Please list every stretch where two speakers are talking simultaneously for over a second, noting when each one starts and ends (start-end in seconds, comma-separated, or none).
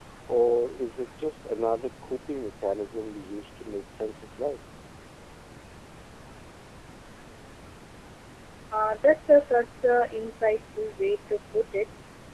none